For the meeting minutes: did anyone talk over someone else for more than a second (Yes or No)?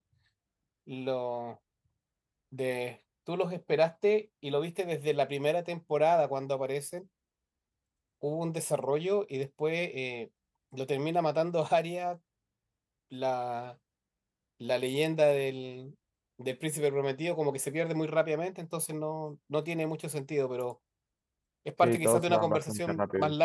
Yes